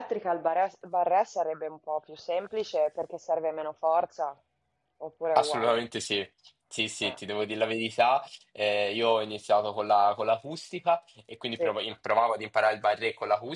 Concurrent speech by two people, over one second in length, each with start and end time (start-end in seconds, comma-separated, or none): none